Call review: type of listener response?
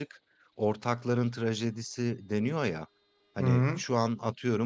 listening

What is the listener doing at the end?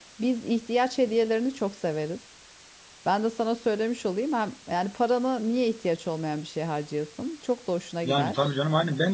taking over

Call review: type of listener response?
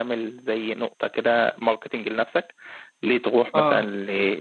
listening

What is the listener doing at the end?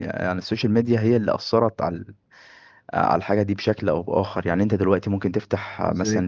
listening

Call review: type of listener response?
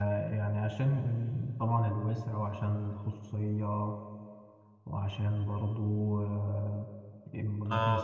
listening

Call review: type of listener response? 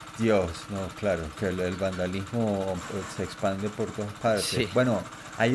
listening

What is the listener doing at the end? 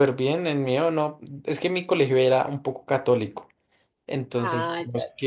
listening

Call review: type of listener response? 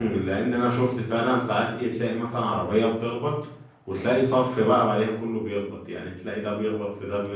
listening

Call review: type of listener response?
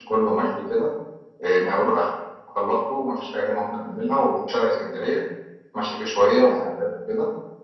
listening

